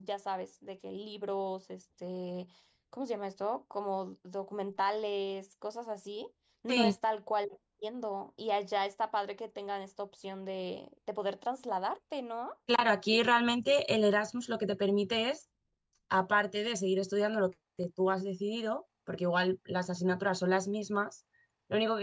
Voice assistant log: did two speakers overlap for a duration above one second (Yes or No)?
No